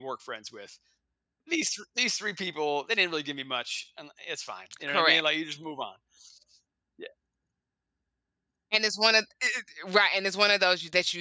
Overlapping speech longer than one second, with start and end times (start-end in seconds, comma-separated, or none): none